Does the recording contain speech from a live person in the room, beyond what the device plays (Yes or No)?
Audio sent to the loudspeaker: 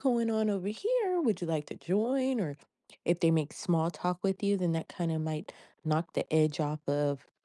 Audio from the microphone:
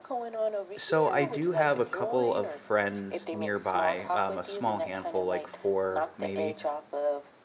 Yes